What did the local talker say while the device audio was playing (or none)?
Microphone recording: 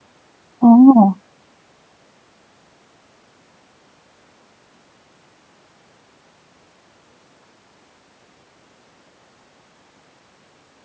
哦，